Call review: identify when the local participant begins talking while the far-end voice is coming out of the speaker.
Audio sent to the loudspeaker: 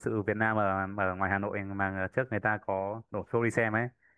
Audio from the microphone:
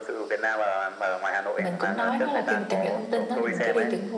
1.6 s

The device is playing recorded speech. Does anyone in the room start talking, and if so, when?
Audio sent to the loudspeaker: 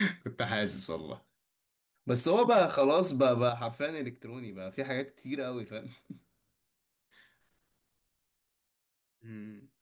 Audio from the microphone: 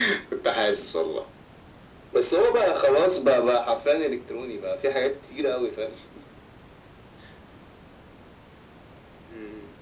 none

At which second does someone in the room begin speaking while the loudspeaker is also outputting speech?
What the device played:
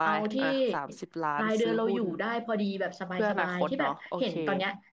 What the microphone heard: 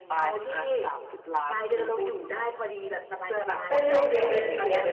3.7 s

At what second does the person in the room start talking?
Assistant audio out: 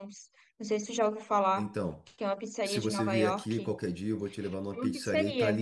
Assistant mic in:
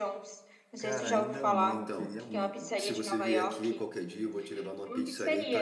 0.8 s

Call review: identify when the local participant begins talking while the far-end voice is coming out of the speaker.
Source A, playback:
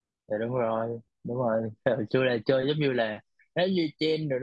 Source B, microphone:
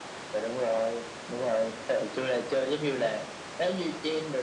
none

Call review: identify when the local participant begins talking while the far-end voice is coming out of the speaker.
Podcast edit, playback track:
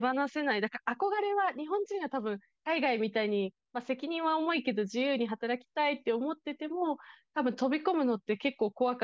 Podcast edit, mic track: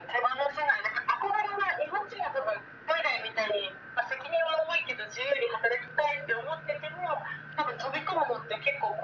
none

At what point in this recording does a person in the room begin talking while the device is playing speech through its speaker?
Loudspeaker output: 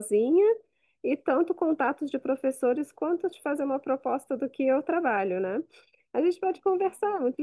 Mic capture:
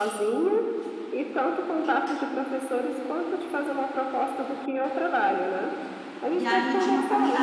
6.3 s

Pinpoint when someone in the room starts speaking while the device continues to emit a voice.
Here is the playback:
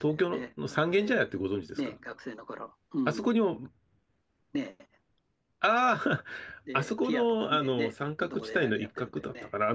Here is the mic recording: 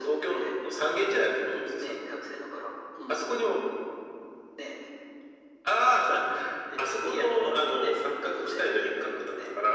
none

